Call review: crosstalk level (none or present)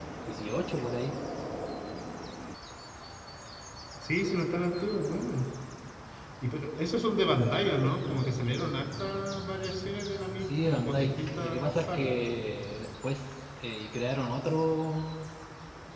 present